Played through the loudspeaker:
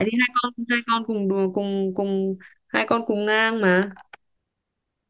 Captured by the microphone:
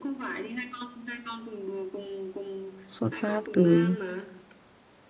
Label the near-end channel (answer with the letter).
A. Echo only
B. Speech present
B